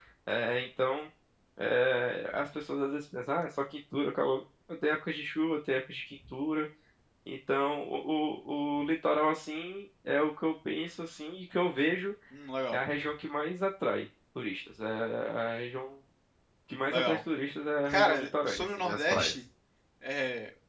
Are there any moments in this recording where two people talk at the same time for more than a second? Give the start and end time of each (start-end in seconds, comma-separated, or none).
17.9-19.3